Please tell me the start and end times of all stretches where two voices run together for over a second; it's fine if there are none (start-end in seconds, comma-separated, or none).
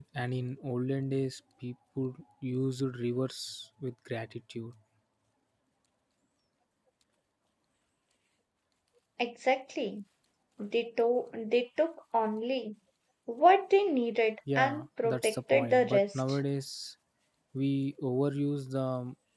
14.6-16.4